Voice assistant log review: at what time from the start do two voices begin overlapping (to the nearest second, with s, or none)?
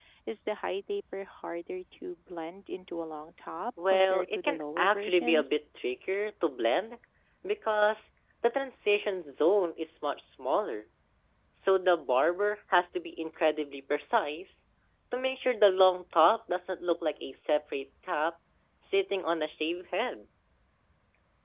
4 s